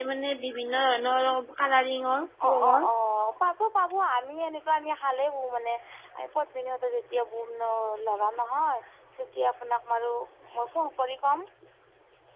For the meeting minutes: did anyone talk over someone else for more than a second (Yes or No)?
No